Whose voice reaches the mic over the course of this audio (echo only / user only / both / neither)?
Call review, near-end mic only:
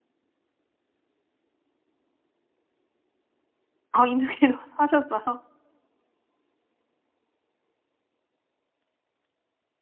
user only